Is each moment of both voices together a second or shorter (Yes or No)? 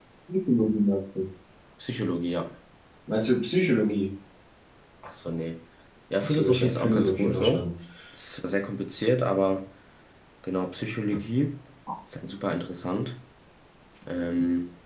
No